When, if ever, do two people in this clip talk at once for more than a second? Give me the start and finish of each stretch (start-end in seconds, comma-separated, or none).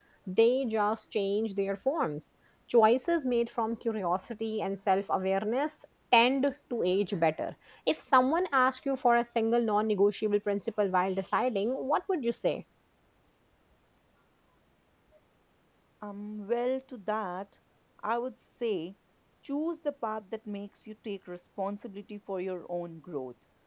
none